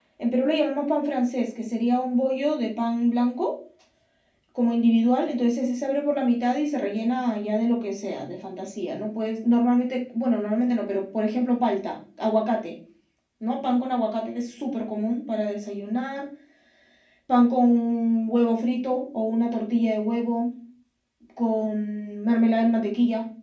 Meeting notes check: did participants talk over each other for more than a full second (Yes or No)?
No